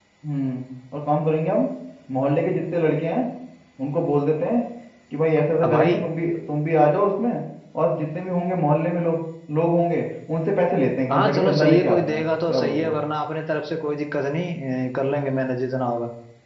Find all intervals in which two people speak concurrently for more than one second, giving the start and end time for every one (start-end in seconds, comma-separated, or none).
11.1-13.0